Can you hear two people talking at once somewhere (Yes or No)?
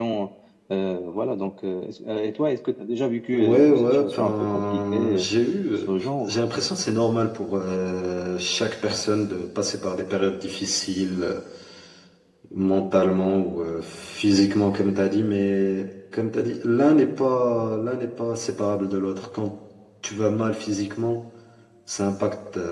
Yes